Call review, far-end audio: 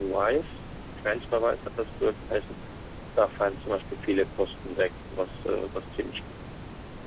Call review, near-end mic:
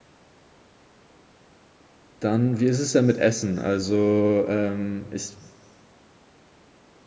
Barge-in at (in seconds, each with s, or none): 2.2 s